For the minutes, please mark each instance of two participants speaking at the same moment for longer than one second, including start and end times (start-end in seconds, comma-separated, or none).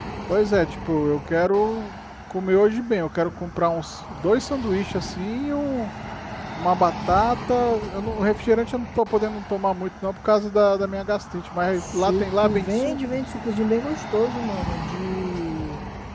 11.8-13.2